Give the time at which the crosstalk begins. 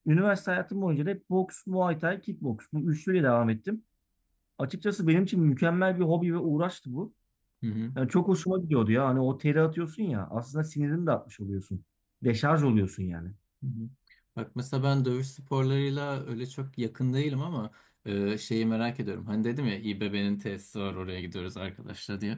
none

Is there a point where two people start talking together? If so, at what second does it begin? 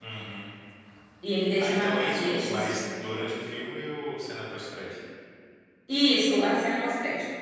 1.6 s

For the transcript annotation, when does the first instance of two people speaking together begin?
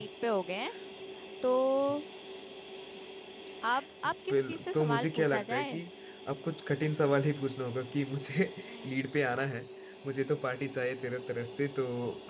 4.3 s

